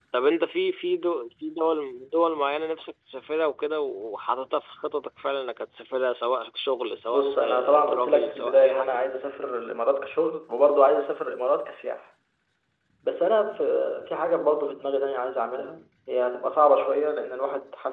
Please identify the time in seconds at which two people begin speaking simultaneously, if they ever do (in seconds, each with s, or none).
7.1 s